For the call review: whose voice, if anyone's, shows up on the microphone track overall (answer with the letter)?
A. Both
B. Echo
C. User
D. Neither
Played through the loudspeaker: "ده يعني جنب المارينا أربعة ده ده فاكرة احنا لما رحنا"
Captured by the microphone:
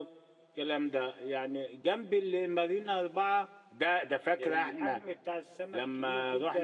A